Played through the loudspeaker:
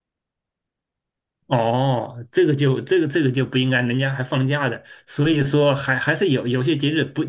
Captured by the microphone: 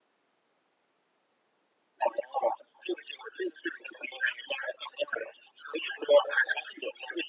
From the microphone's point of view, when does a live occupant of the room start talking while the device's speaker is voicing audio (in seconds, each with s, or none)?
none